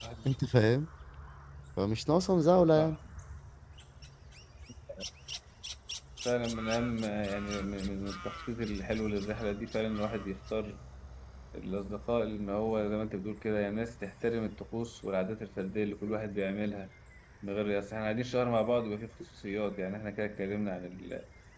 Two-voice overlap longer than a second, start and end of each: none

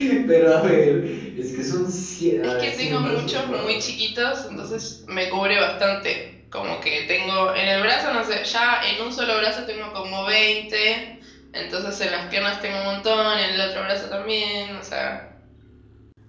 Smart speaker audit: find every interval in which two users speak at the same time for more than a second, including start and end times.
2.4-3.8

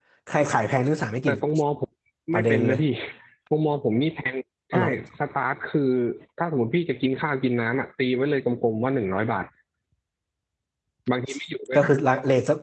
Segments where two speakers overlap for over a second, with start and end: none

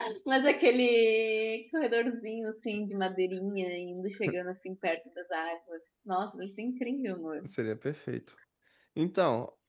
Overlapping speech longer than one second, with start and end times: none

